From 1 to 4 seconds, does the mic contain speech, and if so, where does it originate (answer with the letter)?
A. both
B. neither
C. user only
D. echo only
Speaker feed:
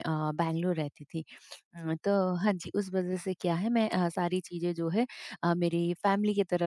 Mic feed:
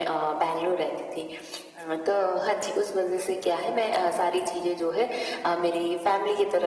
D